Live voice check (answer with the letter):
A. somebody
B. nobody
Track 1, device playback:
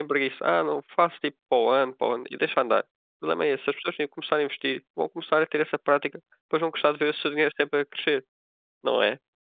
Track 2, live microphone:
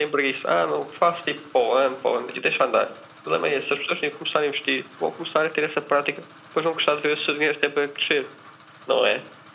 B